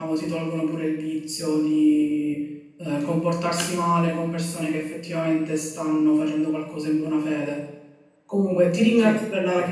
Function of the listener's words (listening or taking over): listening